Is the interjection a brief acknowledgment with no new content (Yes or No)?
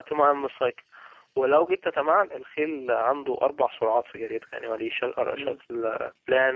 Yes